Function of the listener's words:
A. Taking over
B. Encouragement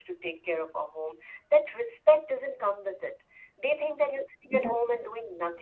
B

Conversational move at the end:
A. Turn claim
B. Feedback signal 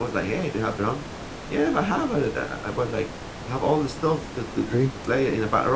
B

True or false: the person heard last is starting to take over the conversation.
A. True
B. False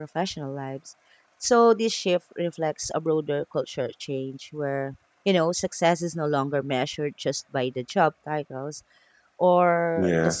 B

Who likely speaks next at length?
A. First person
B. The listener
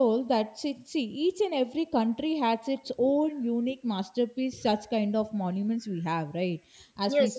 A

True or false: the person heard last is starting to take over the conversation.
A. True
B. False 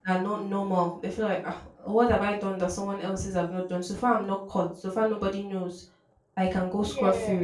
B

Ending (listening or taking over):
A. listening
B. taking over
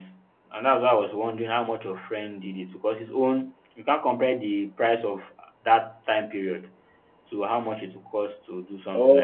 B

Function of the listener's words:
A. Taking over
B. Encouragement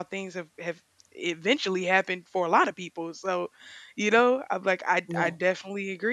B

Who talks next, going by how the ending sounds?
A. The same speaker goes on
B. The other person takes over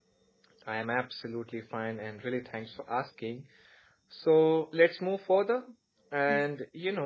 A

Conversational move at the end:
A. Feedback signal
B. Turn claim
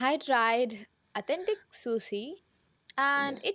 A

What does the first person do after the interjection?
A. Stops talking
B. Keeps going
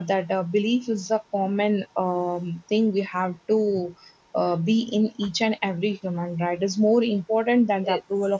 B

